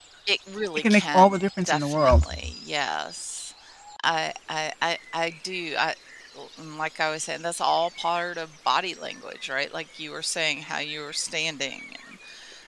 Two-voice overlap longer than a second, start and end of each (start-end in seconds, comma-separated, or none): 0.8-2.3